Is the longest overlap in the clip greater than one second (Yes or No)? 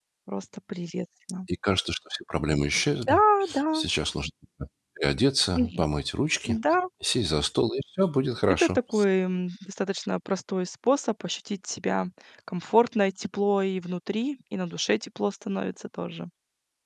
No